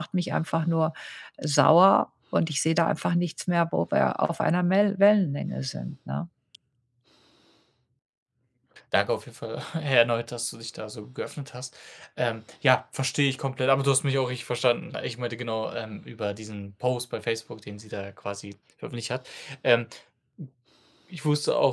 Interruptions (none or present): none